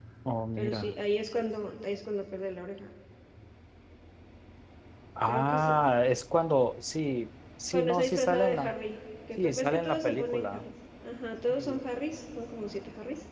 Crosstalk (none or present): present